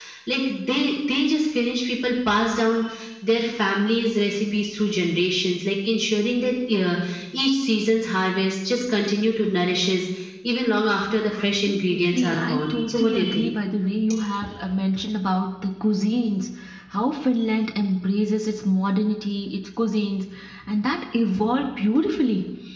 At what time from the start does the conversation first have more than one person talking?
11.3 s

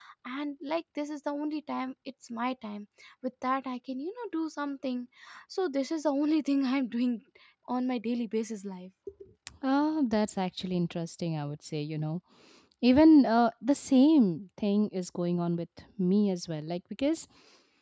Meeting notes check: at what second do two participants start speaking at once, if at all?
none

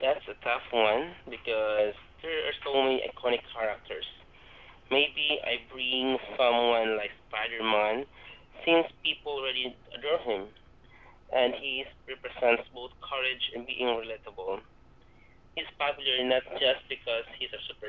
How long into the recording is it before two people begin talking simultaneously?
none

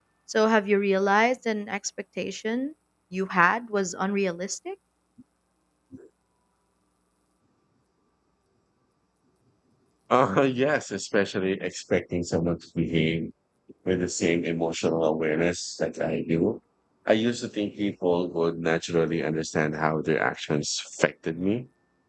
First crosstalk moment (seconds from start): none

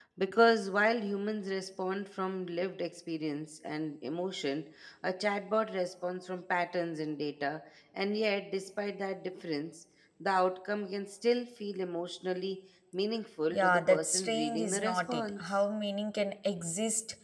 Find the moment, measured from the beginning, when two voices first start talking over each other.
13.5 s

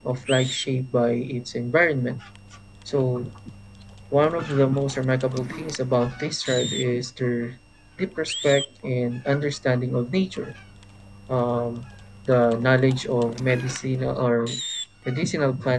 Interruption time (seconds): none

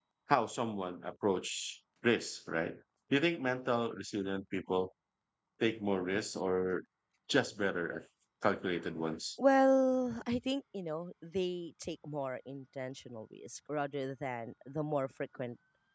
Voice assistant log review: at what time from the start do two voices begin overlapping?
none

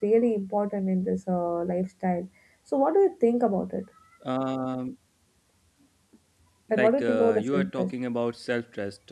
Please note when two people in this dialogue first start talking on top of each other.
6.7 s

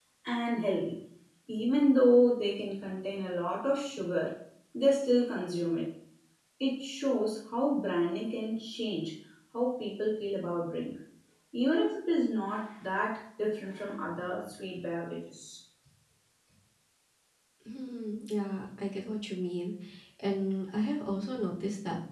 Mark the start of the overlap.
none

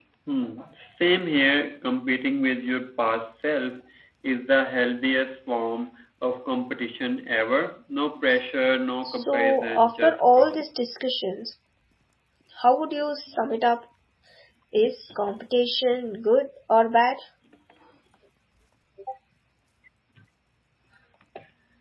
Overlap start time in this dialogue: 9.1 s

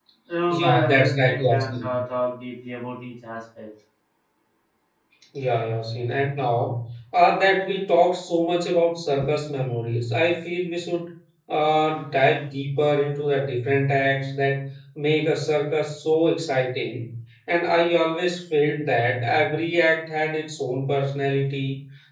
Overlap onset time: 0.5 s

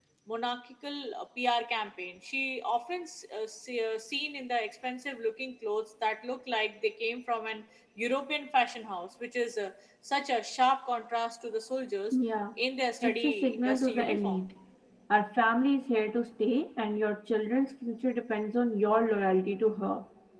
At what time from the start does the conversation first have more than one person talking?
13.0 s

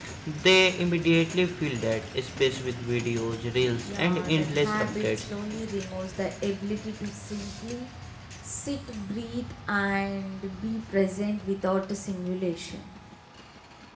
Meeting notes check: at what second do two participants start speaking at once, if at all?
3.9 s

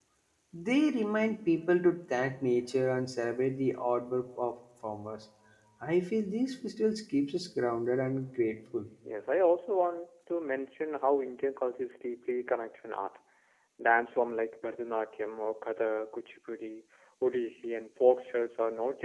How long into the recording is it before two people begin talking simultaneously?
none

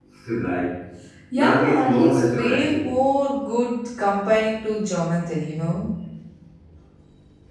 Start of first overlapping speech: 1.3 s

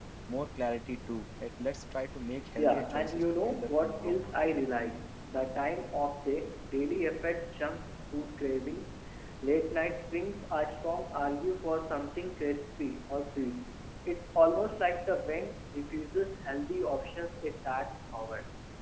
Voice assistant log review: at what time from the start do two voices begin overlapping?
2.6 s

